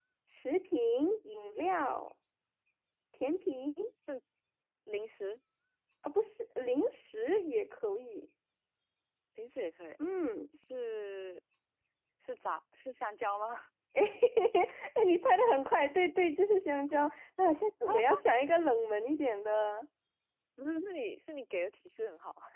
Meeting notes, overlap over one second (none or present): none